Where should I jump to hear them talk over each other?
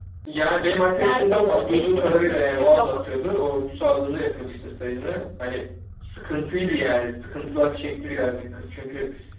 1.0 s

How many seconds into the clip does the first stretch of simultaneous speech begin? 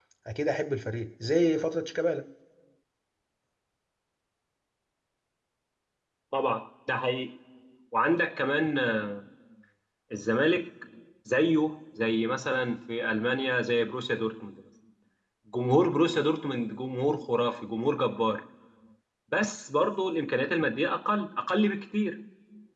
none

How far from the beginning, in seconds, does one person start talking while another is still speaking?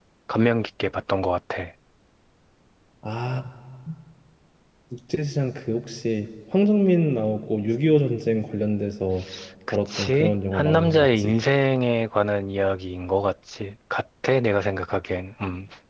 9.7 s

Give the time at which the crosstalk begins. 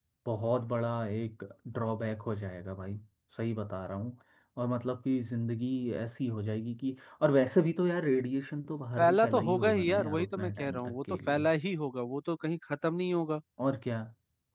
9.0 s

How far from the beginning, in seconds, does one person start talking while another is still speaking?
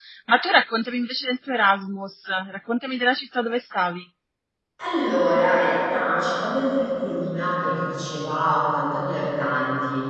none

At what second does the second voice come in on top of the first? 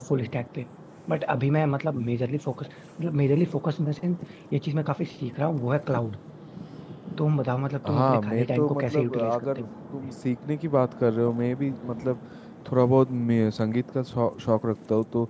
7.9 s

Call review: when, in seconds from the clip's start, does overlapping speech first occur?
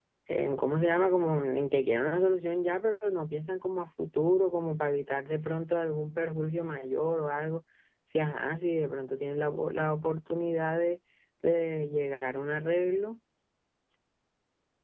none

